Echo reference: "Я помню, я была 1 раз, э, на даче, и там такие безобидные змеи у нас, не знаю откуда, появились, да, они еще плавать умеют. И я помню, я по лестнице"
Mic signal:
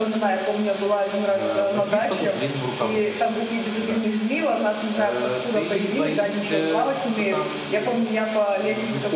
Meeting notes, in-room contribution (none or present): present